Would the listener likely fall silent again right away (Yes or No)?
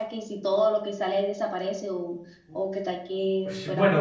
No